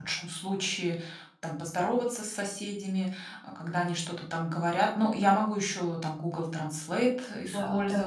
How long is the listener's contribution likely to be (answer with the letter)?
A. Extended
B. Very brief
B